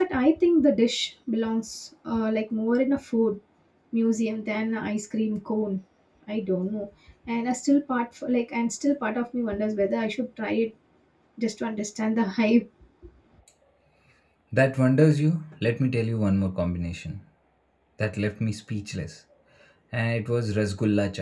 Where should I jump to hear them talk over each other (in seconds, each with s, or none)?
none